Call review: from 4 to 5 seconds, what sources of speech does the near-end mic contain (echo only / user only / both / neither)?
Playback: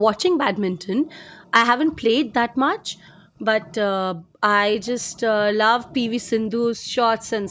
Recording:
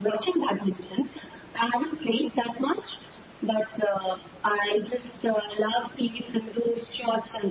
echo only